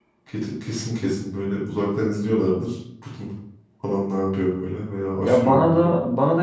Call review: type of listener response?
taking over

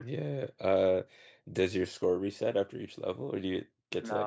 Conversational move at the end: taking over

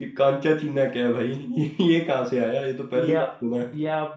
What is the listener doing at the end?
taking over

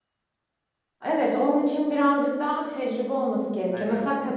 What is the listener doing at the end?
listening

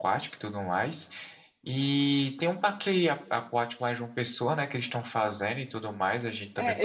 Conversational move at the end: taking over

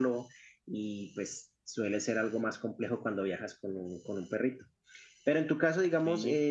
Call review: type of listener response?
listening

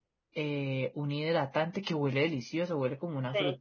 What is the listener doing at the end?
listening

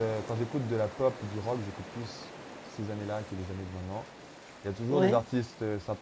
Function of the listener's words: listening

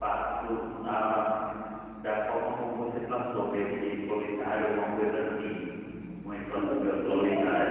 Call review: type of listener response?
taking over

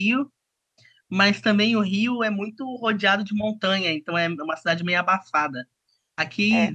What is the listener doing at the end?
listening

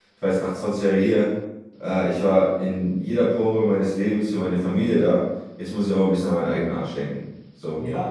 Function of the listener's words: taking over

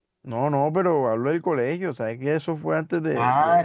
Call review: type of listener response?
taking over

